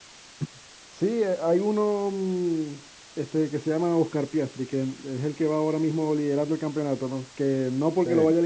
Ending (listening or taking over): listening